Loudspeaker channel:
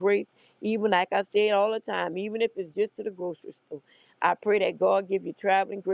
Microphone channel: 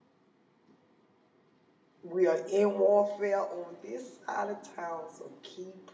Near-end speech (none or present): present